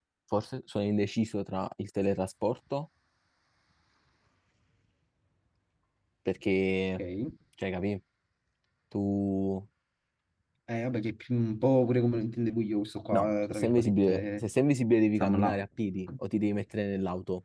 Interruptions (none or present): present